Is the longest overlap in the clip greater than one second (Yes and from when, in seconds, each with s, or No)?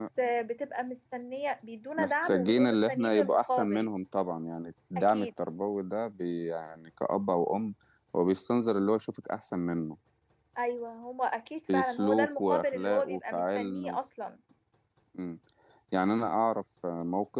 Yes, from 2.0 s